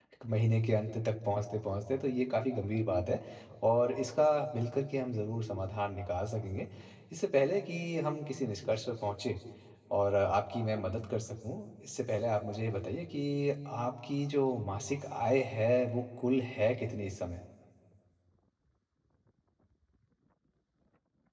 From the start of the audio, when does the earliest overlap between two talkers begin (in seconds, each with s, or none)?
none